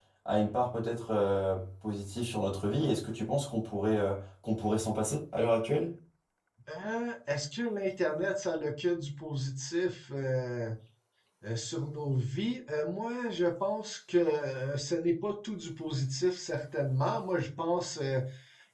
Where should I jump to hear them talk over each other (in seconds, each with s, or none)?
none